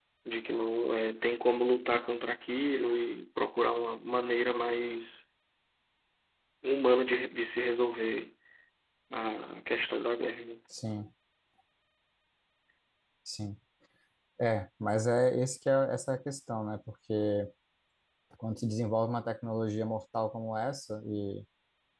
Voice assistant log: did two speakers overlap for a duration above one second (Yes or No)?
No